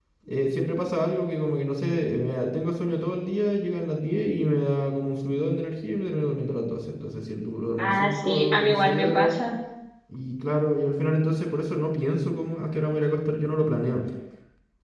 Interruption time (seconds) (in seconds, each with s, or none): 7.8 s